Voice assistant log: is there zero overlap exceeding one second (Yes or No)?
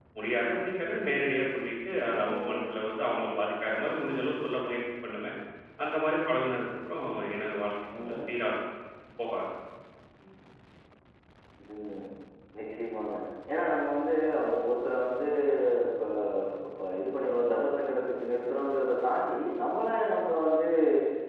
Yes